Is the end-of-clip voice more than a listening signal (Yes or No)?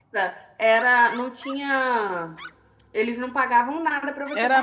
Yes